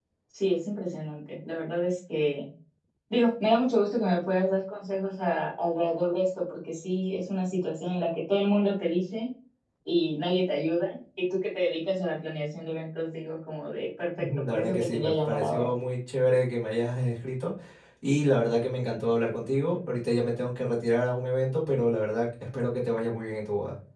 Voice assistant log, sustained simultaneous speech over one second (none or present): present